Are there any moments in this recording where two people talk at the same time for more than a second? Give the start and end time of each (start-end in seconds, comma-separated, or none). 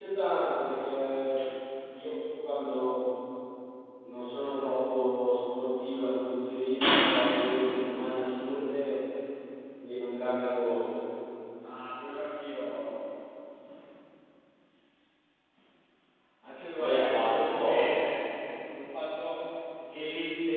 16.8-18.0